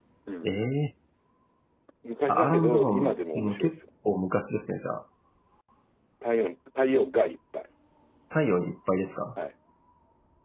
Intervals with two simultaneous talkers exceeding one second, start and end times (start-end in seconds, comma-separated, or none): 2.3-3.8